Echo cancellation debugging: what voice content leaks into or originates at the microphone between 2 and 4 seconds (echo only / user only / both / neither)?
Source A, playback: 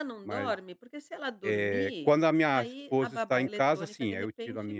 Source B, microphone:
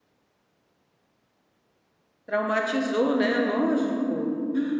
user only